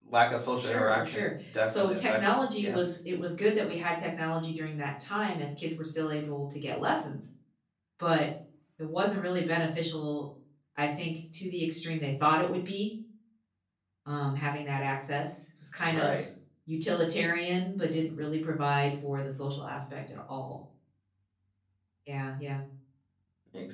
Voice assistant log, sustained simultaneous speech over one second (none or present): present